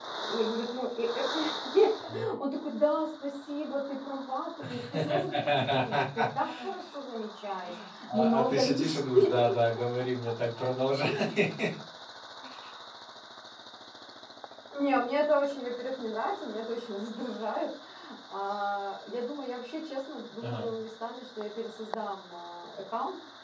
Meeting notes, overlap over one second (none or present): present